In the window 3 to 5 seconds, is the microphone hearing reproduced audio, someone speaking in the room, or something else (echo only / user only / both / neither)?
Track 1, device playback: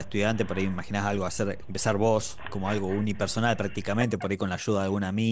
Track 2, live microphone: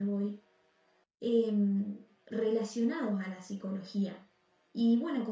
user only